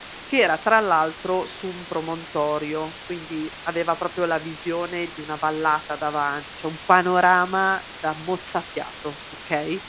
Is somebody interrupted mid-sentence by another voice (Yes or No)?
No